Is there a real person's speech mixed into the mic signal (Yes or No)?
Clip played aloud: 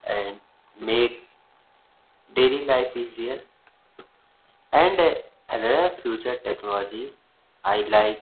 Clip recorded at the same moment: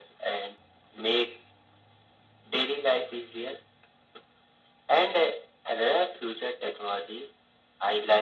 No